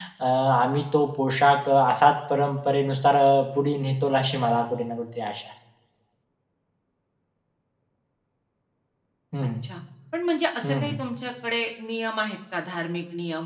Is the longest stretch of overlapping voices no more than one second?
Yes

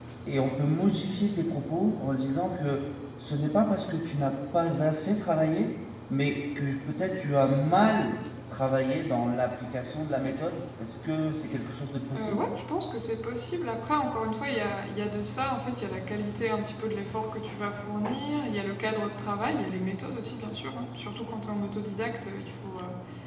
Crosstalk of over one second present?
No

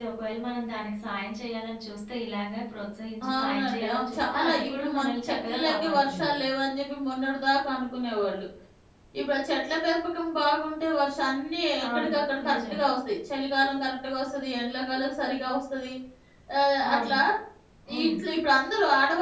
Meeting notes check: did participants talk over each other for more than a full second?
Yes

